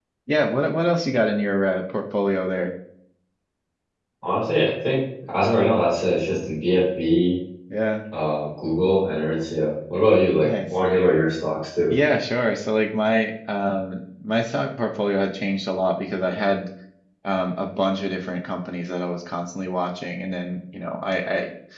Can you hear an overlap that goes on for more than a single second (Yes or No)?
No